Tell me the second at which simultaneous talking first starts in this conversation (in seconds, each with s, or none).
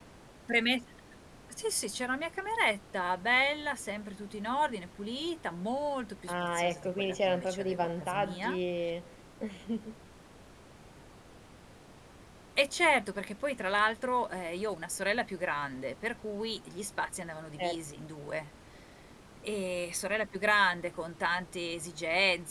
6.3 s